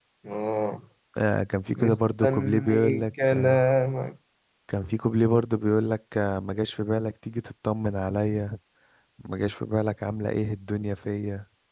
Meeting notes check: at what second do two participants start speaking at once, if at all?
1.7 s

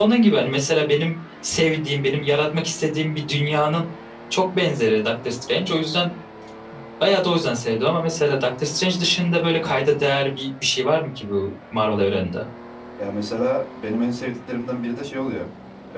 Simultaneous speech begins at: none

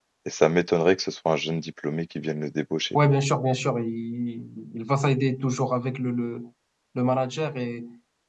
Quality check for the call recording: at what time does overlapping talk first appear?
none

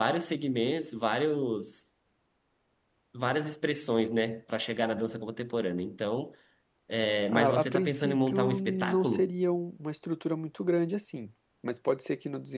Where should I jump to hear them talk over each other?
7.3 s

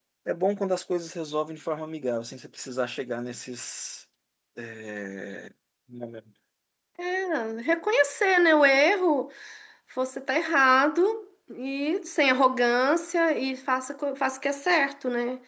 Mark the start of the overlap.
none

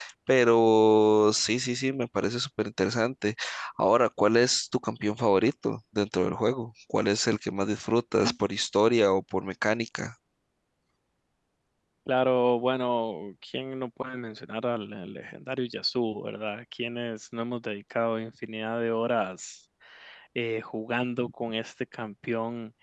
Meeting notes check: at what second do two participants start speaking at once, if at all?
none

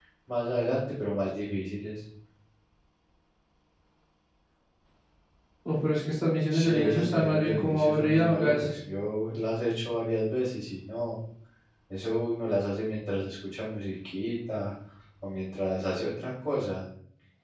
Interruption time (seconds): 6.5 s

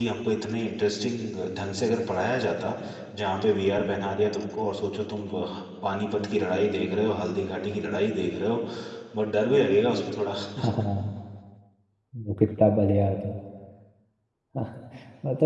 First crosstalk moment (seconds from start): none

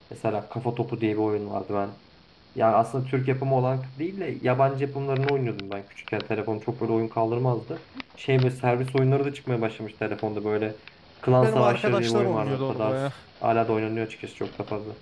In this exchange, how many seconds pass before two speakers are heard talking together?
11.4 s

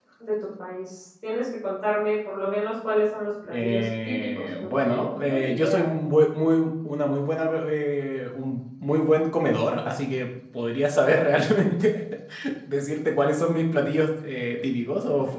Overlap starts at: 3.5 s

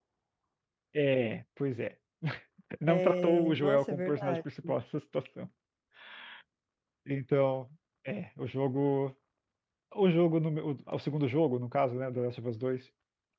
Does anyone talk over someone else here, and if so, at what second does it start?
2.9 s

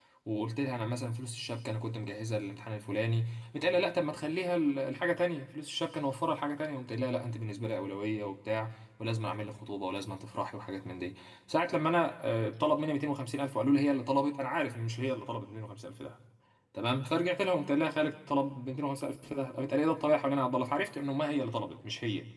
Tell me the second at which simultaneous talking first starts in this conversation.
none

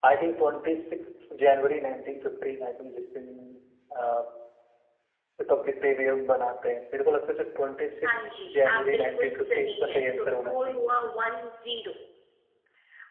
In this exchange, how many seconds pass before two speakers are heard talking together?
8.0 s

